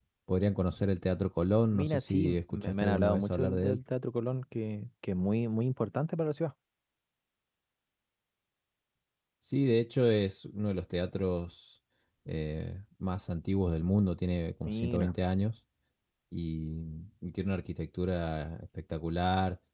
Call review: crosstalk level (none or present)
present